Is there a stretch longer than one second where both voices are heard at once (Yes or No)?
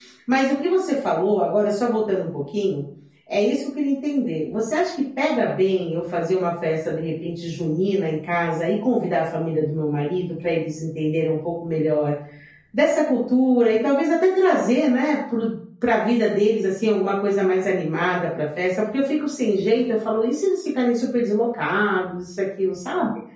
No